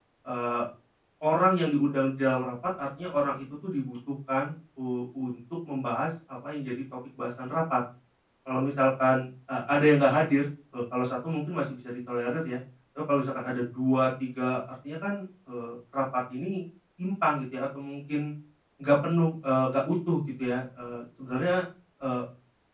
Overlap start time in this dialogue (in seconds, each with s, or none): none